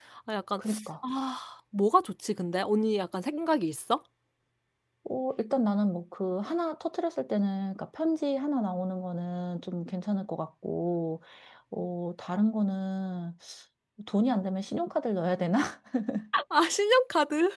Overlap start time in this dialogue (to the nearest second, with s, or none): none